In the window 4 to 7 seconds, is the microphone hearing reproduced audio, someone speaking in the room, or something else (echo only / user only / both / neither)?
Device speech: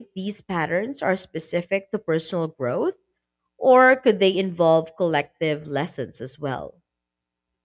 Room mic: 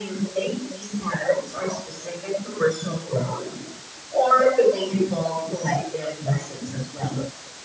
echo only